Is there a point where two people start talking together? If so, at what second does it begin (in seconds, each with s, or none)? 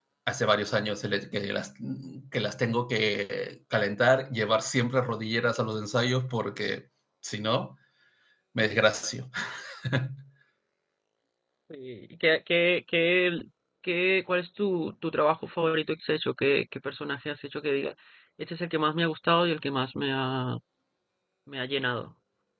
none